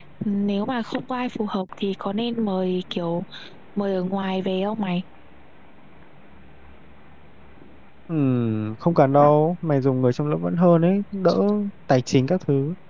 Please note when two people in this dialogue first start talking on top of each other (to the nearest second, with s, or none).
none